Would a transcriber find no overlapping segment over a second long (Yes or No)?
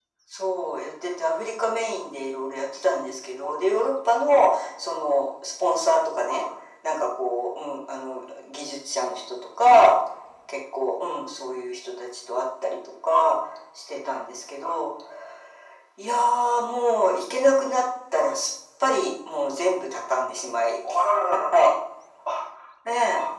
Yes